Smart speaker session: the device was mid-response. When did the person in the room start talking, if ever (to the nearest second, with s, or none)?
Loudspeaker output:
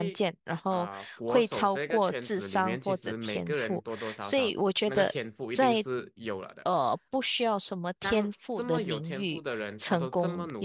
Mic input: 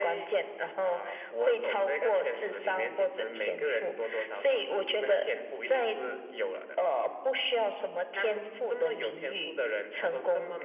none